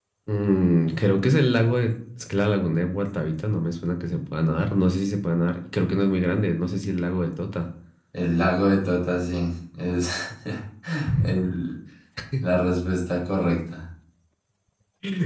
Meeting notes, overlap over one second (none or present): none